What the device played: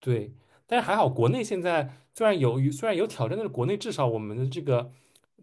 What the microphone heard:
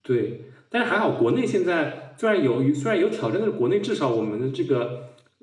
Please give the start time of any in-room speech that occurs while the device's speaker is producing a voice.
none

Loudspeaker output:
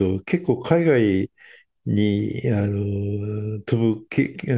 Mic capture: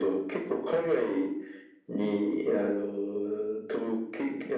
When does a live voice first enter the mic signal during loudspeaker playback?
none

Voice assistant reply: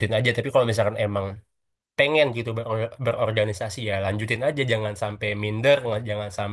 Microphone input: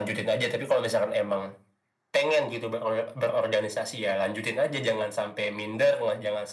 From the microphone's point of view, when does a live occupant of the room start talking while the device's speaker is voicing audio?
none

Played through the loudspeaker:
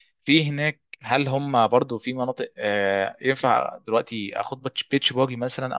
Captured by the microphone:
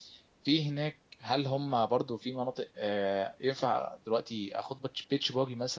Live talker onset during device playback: none

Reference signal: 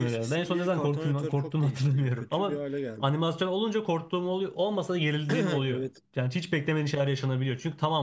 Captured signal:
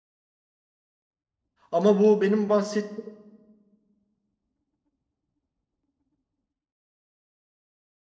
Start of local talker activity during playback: 1.7 s

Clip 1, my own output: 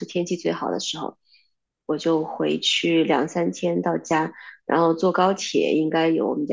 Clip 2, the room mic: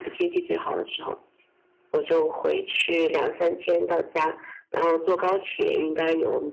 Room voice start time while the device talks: none

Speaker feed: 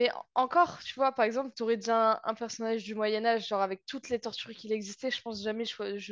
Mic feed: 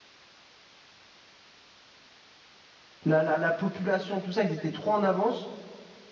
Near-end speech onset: 3.0 s

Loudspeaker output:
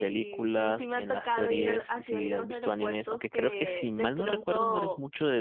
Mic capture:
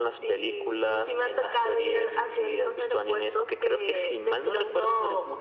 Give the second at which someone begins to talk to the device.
none

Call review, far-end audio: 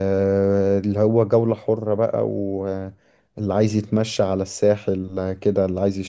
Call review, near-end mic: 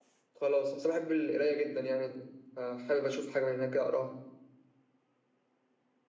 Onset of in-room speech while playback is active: 0.4 s

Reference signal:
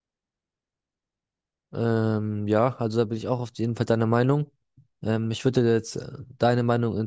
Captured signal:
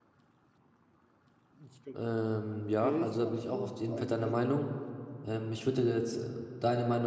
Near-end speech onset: 1.6 s

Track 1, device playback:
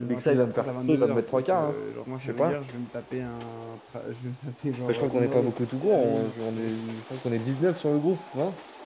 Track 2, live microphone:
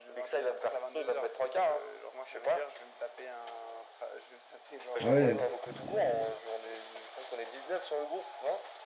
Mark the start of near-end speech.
5.0 s

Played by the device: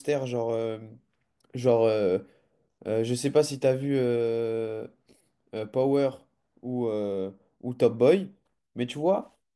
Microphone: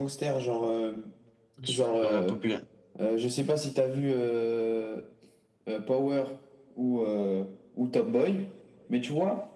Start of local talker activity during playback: 1.6 s

